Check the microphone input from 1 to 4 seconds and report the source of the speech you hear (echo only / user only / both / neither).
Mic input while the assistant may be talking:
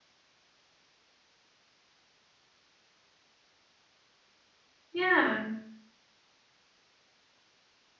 neither